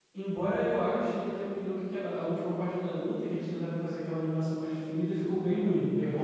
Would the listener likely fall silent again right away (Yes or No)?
No